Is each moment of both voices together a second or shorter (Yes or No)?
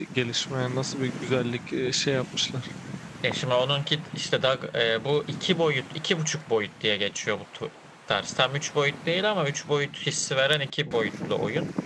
Yes